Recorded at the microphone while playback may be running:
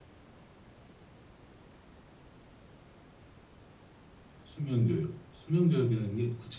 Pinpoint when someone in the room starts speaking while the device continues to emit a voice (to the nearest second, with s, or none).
4 s